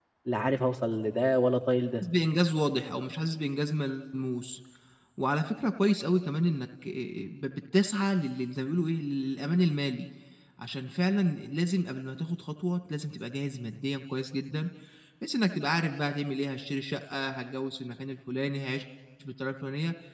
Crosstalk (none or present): none